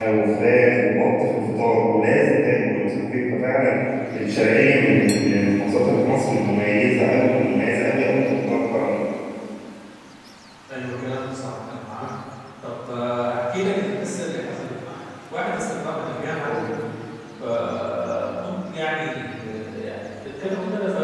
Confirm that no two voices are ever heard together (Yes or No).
Yes